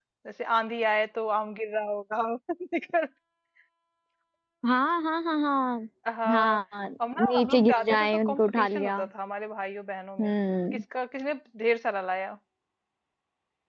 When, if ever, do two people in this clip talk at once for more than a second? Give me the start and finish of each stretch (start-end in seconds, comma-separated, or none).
7.2-9.0